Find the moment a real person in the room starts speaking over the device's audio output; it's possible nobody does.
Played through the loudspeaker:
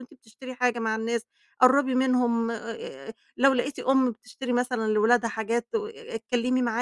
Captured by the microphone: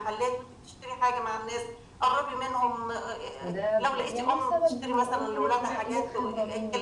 3.4 s

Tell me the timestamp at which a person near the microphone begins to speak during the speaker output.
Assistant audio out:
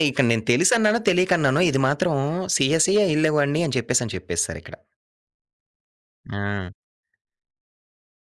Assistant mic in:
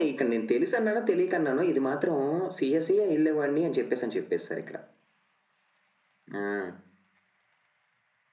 none

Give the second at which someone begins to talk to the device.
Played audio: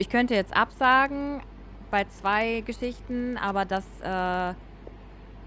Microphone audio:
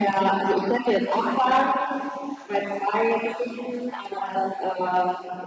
none

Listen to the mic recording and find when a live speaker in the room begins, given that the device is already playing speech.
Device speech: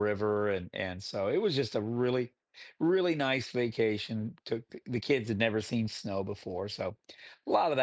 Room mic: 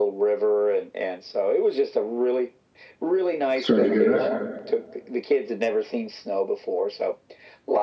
3.6 s

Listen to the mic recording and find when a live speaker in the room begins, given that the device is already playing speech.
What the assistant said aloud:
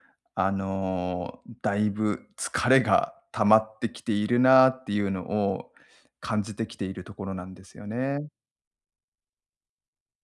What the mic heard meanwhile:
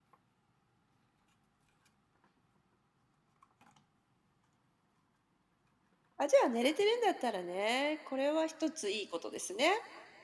6.2 s

